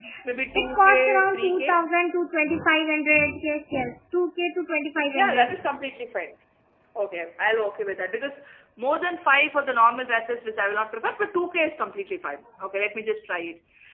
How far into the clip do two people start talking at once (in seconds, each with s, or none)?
0.6 s